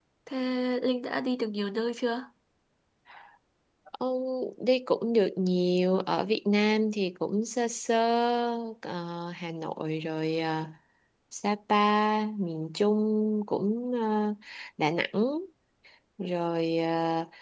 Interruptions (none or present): none